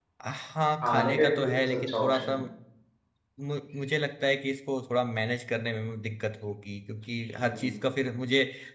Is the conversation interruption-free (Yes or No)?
No